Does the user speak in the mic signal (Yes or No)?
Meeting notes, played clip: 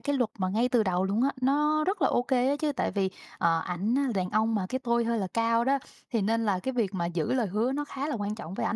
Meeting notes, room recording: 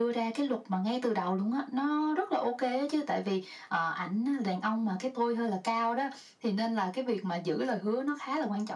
No